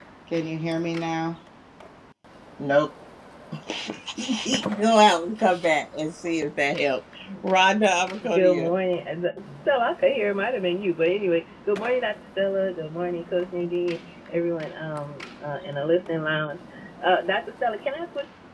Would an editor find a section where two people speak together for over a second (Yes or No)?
No